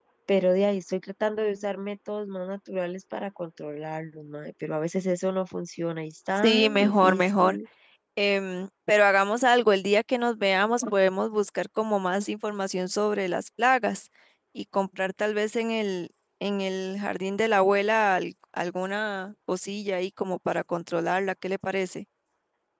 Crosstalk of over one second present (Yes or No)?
Yes